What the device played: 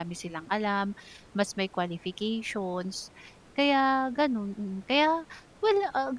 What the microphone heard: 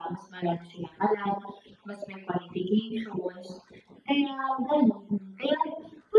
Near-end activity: none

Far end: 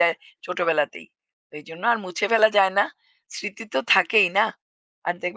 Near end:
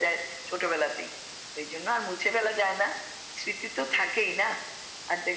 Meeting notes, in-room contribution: none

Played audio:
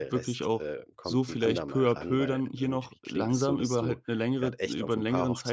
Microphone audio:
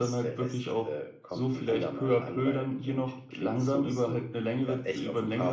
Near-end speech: none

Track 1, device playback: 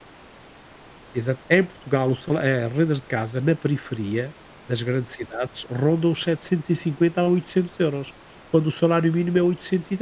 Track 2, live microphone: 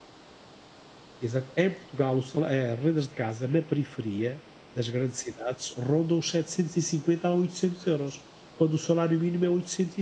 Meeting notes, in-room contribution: none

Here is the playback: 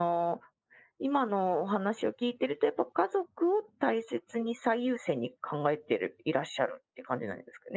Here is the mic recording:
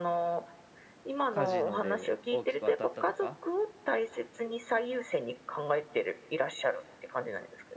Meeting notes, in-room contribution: present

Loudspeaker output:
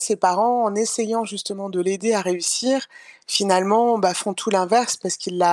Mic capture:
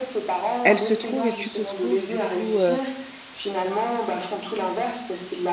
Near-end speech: present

